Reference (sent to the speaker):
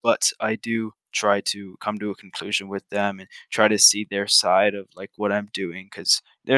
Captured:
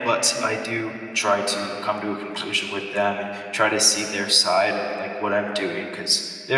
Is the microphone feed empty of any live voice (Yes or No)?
Yes